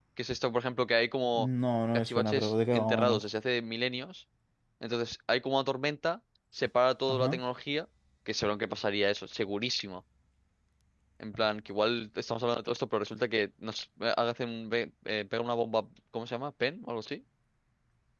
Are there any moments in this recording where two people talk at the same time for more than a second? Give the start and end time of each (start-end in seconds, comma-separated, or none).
1.9-3.2